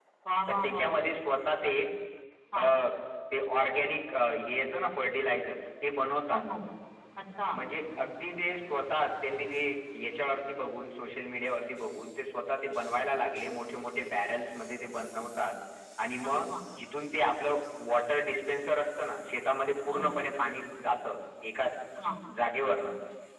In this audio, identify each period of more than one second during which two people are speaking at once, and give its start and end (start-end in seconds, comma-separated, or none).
none